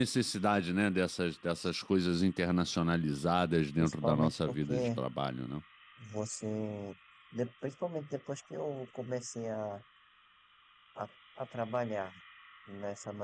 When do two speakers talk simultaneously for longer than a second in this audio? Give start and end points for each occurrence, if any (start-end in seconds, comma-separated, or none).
3.8-5.0